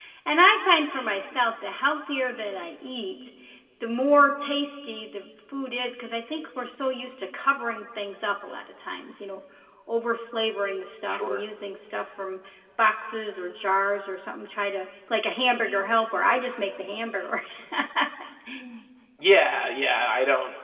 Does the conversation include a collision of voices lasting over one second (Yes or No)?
No